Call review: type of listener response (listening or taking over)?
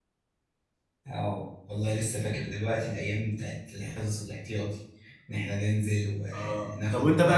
taking over